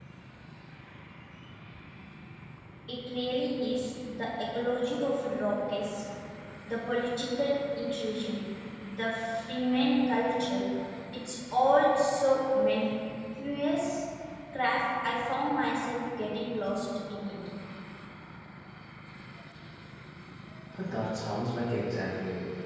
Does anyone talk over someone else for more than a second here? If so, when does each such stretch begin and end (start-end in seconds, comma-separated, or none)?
none